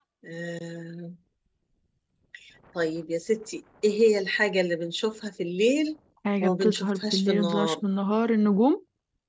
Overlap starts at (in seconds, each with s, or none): 6.4 s